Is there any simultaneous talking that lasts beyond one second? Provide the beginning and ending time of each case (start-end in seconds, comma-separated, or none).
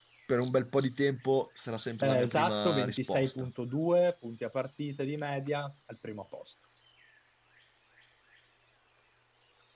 2.0-3.5